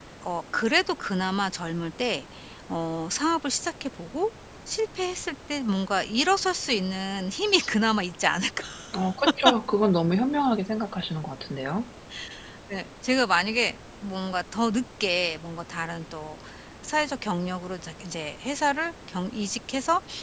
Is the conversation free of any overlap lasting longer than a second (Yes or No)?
Yes